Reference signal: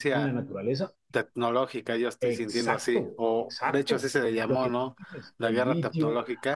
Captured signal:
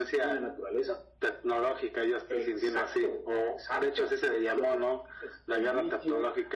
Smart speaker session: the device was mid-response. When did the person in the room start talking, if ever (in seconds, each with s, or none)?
none